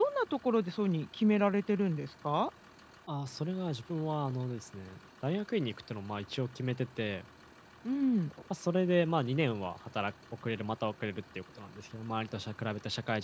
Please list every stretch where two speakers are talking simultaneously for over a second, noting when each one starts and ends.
none

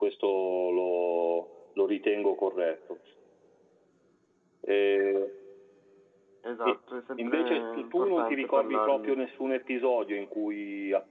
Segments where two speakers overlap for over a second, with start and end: 7.3-9.2

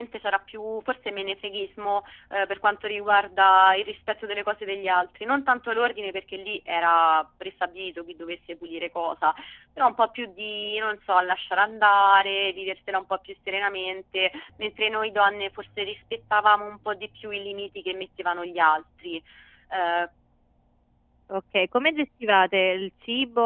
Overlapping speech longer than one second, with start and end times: none

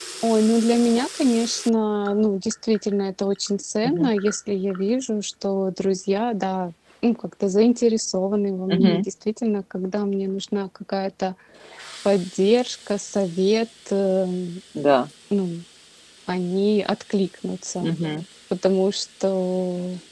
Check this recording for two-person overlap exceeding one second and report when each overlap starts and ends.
none

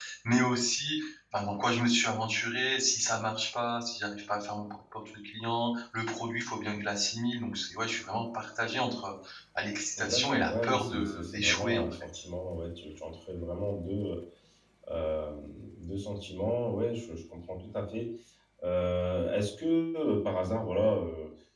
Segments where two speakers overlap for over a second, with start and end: 10.0-12.1

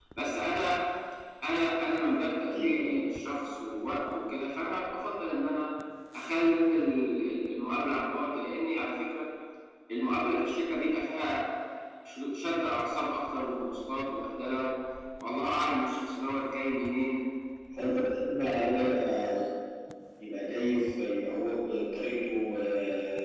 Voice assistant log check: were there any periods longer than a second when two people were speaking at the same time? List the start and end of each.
none

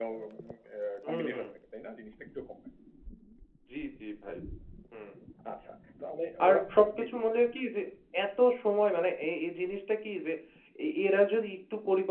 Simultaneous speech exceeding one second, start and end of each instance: none

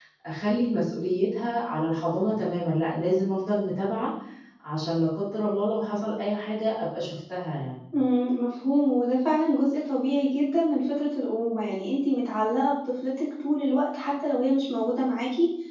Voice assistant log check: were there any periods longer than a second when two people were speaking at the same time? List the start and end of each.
none

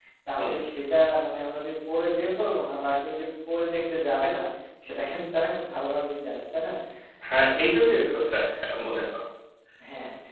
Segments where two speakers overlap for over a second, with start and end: none

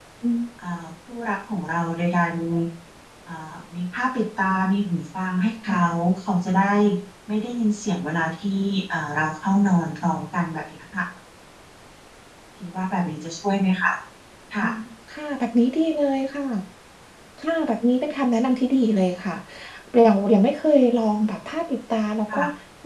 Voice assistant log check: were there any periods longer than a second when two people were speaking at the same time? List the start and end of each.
none

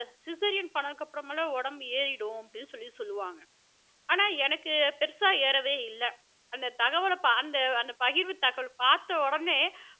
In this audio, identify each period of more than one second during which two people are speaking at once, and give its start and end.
none

